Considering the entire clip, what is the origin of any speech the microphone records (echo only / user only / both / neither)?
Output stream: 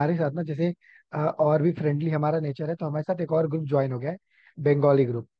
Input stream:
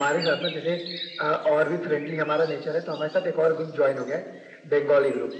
echo only